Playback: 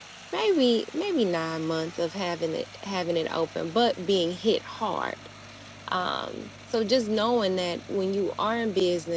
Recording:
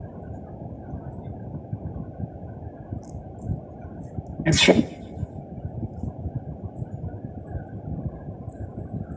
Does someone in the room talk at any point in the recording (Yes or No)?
Yes